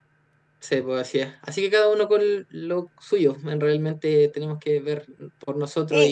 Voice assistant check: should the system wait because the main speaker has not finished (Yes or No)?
No